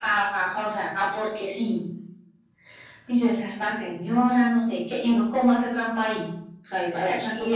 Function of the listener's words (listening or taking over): taking over